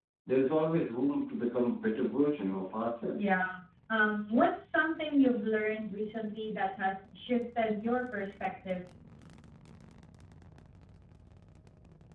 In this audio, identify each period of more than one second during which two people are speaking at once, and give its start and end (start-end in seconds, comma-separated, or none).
none